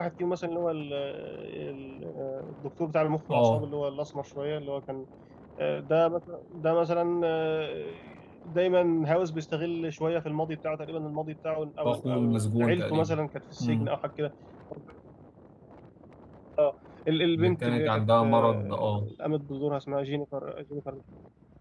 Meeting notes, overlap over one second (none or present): present